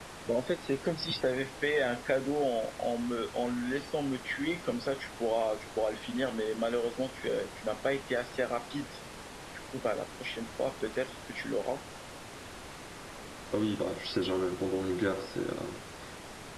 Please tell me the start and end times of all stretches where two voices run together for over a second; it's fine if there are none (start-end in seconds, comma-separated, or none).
none